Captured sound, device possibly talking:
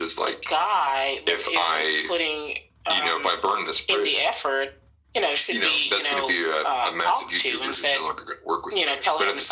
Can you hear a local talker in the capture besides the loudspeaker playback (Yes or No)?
No